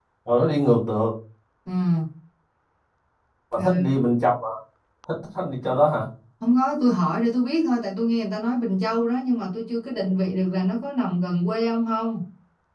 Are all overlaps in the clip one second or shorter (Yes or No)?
Yes